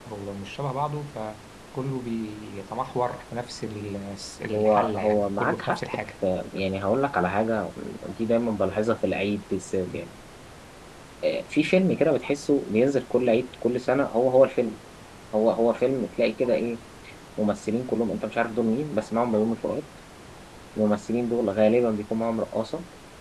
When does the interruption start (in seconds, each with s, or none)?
4.5 s